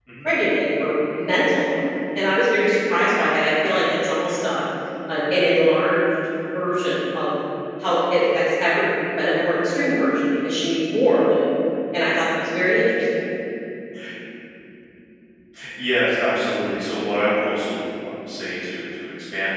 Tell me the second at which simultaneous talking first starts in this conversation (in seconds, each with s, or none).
none